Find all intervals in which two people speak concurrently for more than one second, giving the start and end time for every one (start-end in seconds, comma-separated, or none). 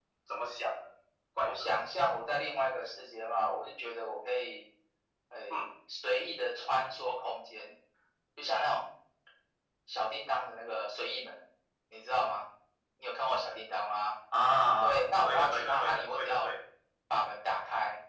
14.8-16.5